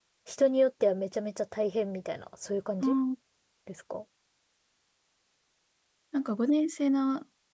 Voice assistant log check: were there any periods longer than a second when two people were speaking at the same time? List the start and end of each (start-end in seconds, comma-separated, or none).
none